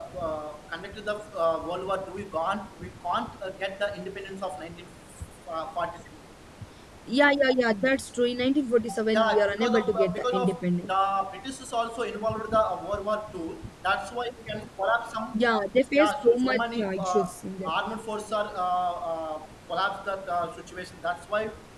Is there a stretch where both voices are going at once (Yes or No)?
Yes